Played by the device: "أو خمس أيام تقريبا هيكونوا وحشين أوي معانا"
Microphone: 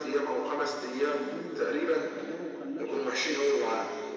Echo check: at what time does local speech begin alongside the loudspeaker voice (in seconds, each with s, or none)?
1.2 s